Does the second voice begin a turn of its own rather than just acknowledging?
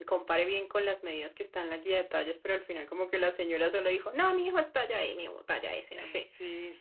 Yes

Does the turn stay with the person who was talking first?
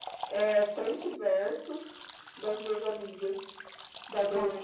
No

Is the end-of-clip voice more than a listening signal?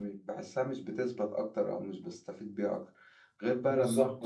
No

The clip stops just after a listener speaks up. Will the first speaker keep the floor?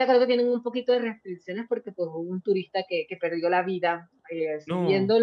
Yes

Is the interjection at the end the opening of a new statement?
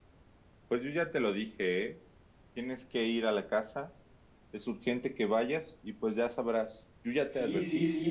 Yes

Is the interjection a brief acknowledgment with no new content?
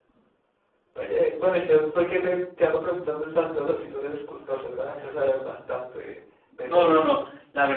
No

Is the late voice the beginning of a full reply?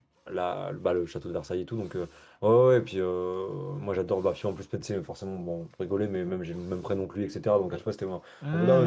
No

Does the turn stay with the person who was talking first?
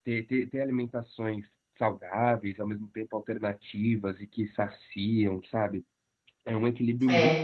Yes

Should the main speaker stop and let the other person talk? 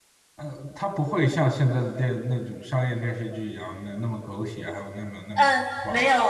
Yes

